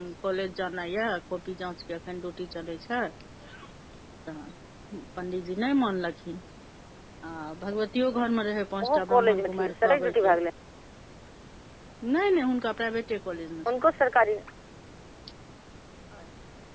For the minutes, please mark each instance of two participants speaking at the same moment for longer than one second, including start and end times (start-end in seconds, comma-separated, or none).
8.8-10.3